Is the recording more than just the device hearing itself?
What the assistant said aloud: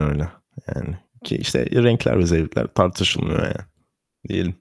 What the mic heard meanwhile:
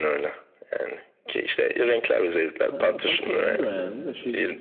Yes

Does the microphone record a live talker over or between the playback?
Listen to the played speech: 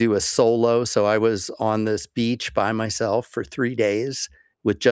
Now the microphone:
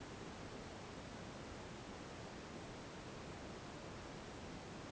No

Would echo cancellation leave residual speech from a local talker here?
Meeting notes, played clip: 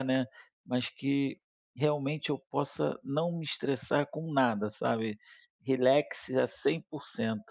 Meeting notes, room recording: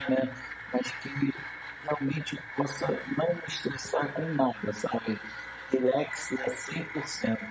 No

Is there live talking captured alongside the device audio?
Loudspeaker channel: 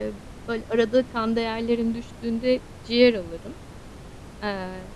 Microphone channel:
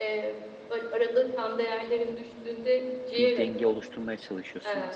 Yes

